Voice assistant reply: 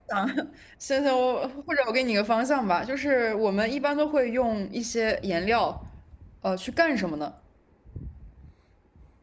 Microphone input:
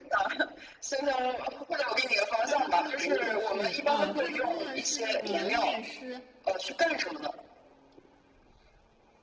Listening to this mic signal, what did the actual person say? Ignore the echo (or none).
他那他的工作是啊，他的工作是那个入殓师、